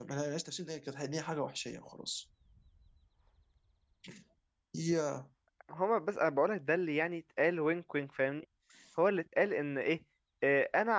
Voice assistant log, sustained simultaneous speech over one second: none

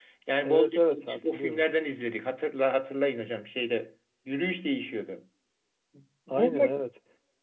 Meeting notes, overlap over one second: present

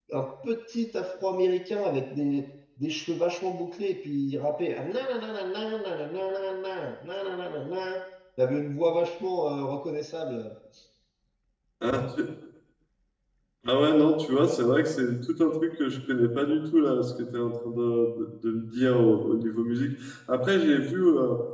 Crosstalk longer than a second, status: none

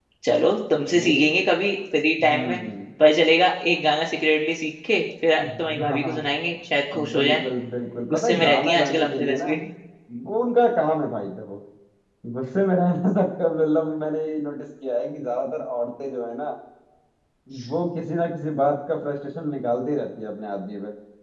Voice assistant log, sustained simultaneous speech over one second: present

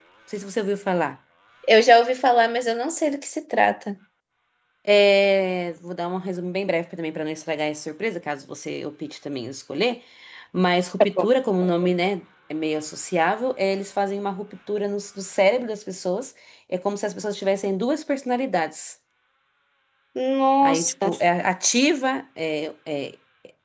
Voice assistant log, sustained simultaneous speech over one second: none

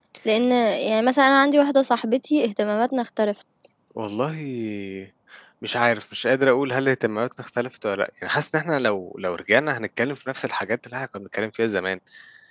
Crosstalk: none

